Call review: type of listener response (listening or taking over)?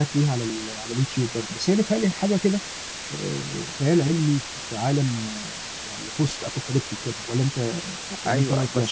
taking over